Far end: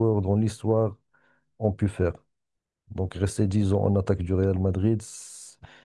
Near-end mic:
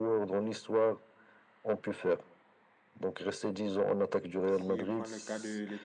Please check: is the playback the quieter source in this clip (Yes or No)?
No